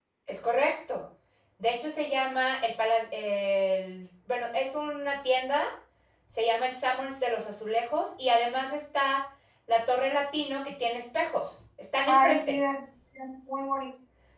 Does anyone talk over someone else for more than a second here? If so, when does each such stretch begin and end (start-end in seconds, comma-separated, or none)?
none